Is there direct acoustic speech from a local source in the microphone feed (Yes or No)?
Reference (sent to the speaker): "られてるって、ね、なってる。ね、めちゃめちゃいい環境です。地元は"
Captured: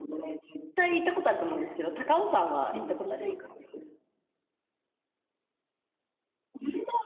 Yes